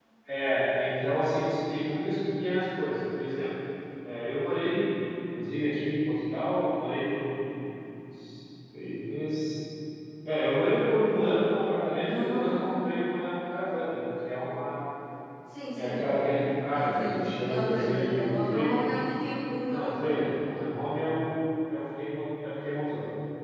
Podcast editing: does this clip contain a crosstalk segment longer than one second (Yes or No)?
Yes